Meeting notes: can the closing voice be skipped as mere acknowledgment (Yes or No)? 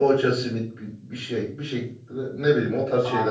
No